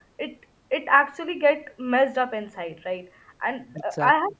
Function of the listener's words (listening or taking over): listening